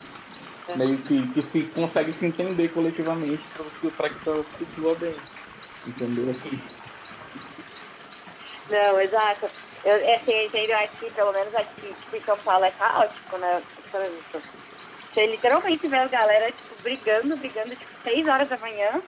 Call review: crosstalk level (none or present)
none